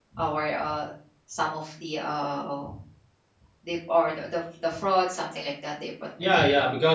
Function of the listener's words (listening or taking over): taking over